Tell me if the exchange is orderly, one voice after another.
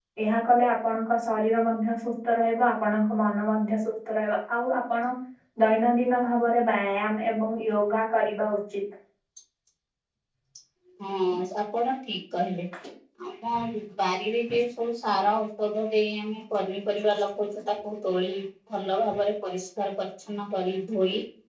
Yes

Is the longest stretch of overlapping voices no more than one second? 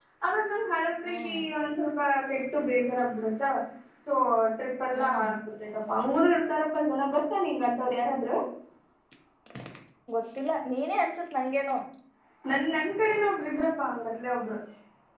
Yes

